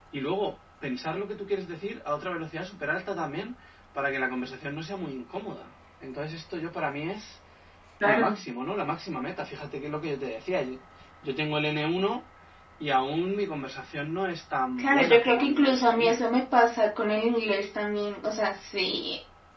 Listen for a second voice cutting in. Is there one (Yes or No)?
Yes